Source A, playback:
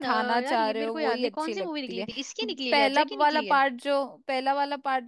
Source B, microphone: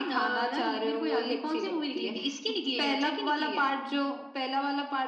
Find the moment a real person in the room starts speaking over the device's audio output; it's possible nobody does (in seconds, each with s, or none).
none